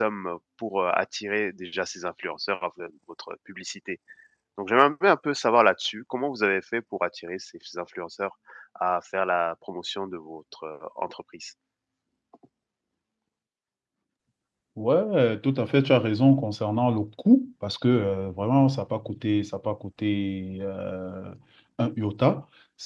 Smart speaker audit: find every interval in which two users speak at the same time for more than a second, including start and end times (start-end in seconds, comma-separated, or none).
none